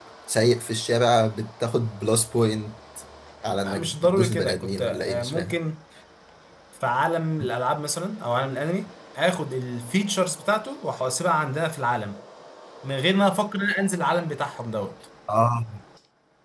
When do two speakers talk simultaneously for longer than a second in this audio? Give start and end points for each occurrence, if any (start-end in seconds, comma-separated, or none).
3.6-5.6